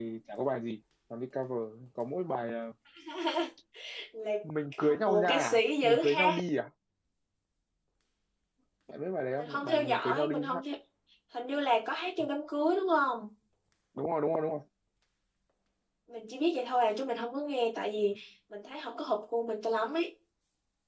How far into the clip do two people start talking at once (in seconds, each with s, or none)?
4.8 s